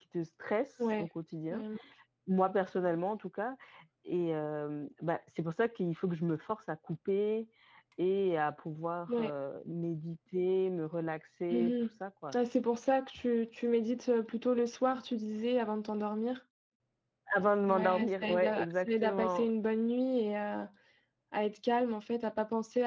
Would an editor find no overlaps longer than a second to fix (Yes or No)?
No